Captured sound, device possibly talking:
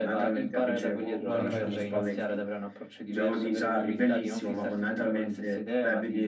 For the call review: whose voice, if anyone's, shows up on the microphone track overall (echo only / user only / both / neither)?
both